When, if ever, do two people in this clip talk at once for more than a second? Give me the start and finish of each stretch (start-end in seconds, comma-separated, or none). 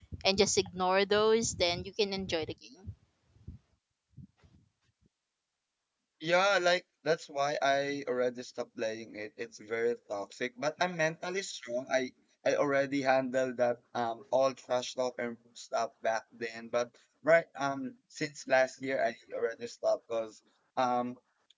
none